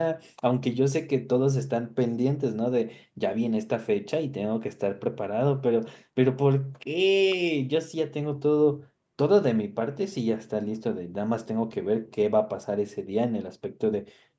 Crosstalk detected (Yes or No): No